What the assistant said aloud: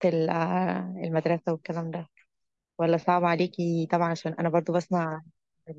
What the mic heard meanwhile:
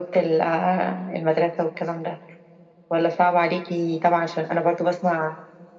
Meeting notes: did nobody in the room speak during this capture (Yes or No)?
Yes